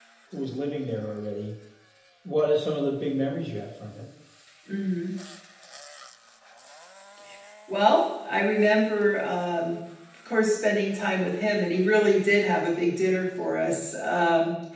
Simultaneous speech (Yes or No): No